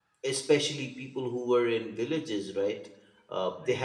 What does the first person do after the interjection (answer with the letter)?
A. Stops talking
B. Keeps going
B